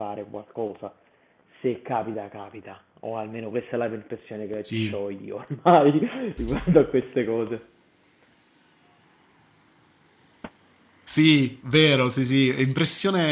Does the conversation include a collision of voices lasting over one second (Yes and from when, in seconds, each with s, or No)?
No